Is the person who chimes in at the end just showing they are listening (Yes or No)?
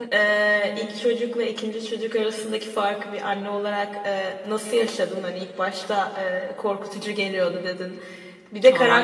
Yes